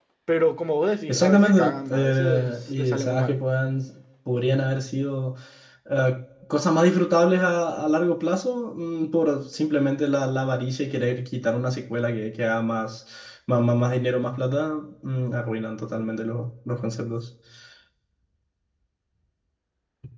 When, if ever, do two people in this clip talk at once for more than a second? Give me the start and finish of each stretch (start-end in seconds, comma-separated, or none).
1.1-3.4